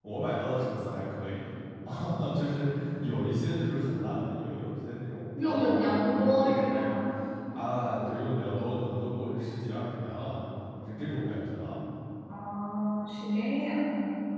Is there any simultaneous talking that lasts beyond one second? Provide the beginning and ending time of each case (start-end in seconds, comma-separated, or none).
5.4-7.0